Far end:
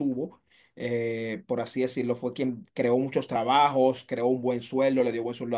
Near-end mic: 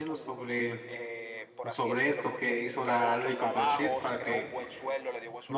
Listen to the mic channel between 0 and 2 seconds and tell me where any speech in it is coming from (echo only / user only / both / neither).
both